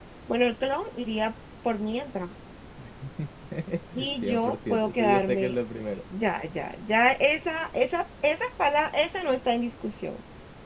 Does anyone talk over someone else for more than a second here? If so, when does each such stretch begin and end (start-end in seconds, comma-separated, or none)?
4.1-5.5